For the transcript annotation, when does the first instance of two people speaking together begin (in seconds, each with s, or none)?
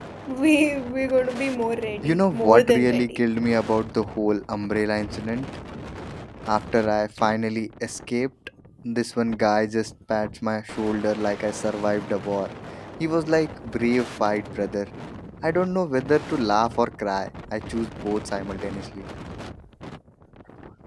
2.0 s